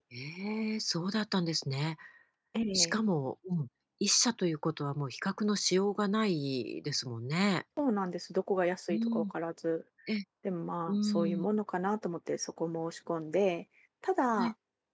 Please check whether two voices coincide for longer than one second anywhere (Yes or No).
No